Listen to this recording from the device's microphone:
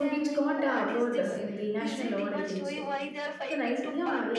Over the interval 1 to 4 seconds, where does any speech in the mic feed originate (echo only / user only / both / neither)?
both